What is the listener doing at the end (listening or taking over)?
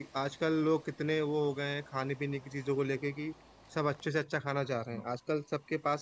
listening